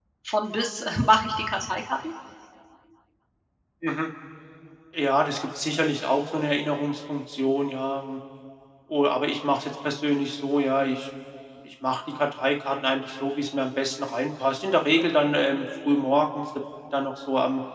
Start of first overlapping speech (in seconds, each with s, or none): none